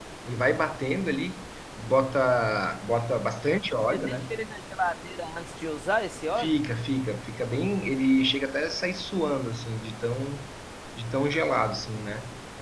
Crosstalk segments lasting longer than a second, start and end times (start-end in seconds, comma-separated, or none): none